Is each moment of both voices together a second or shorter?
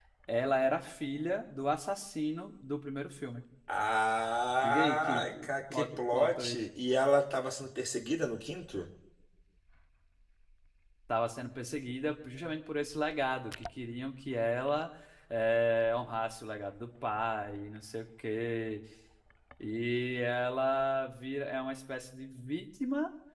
No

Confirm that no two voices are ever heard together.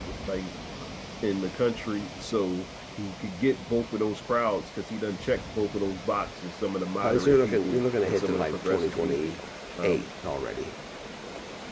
No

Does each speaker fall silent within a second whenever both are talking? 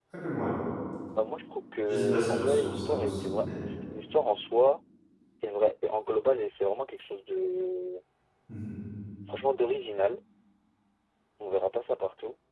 No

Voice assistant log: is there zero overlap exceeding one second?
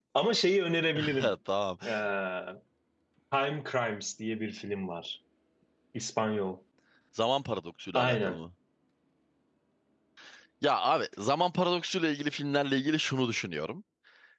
Yes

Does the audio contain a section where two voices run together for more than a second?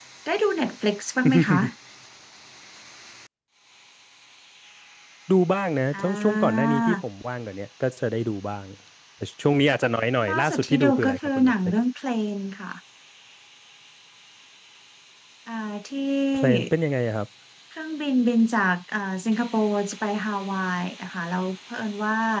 Yes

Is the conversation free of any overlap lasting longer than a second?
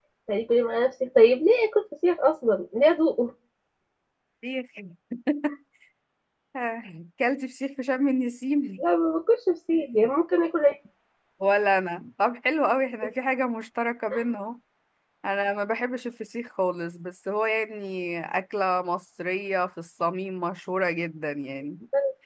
Yes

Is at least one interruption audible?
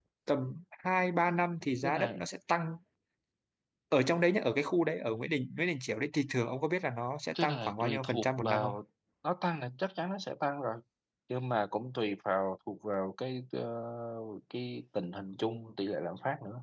Yes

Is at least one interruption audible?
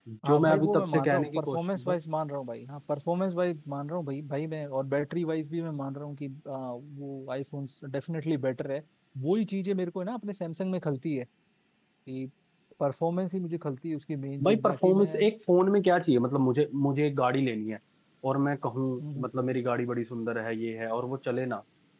Yes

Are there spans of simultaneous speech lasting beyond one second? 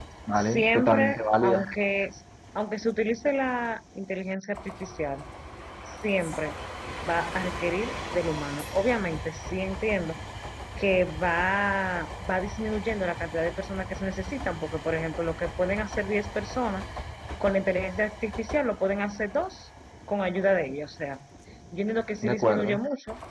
Yes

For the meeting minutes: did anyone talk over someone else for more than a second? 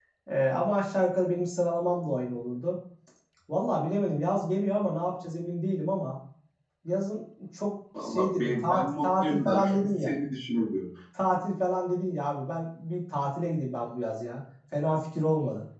Yes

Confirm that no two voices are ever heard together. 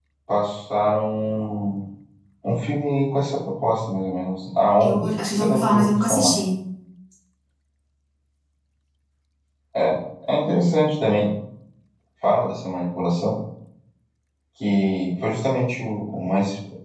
No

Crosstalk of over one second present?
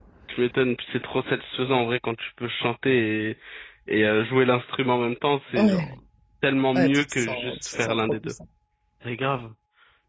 Yes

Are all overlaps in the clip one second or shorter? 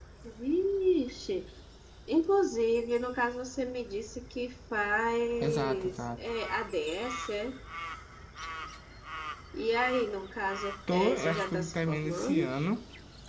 No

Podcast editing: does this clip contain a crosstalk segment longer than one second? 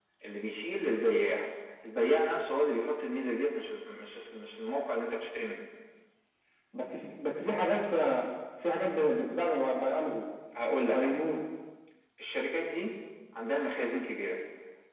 No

